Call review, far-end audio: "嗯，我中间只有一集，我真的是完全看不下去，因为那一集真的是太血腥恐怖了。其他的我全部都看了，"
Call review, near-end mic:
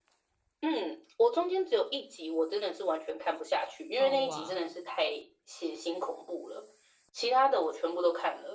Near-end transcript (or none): 哦哇，